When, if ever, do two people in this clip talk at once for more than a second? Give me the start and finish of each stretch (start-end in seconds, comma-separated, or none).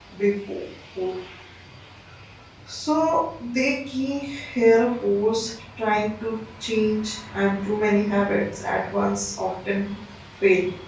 none